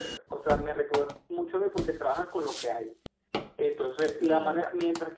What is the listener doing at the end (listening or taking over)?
listening